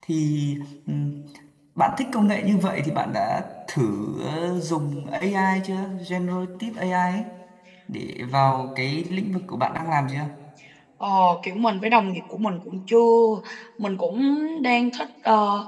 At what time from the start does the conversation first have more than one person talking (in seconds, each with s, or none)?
none